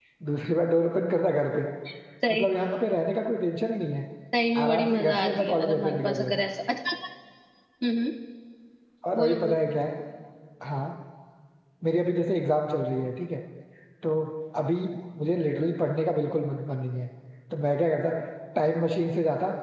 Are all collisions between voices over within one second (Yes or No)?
No